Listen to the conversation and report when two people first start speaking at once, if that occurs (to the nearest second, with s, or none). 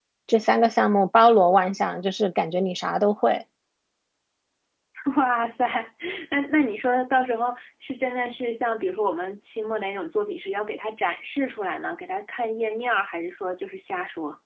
none